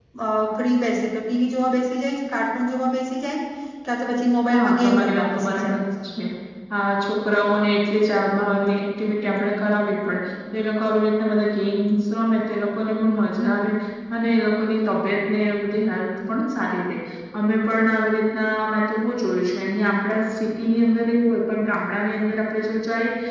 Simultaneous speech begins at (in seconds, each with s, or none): 4.5 s